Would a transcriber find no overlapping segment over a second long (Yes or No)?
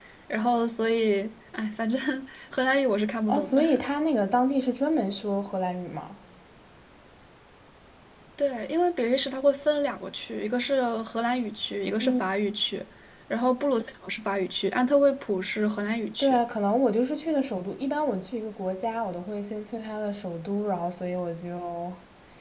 Yes